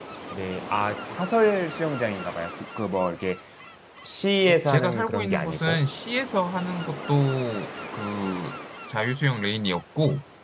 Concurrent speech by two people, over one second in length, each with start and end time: 4.4-5.8

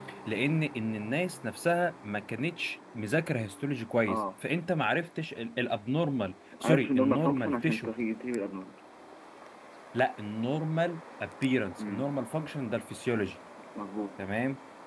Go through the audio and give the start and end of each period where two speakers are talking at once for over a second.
6.6-7.9

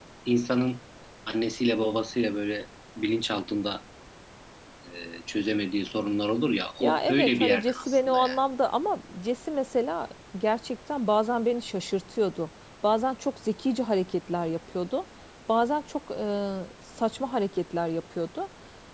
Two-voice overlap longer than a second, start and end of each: 6.8-8.4

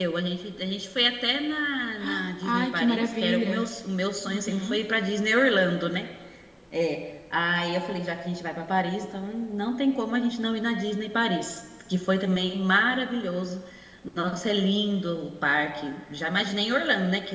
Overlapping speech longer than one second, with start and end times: 2.0-3.7

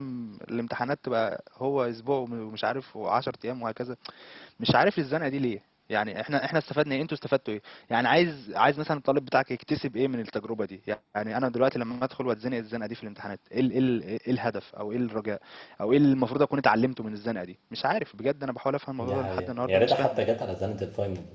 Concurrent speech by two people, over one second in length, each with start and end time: 19.0-20.2

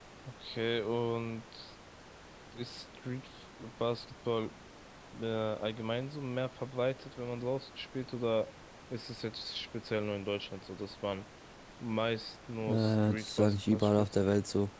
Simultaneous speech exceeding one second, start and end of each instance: 12.7-14.1

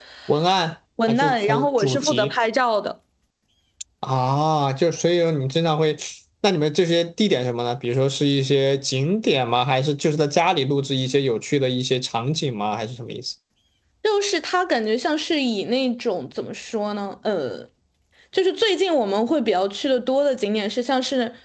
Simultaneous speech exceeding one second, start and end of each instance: 1.1-2.3

